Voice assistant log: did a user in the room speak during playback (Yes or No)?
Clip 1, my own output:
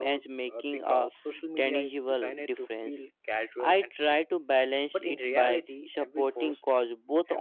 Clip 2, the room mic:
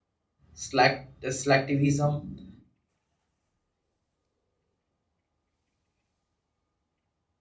Yes